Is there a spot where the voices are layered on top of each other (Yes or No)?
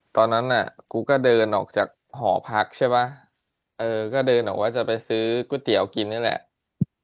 No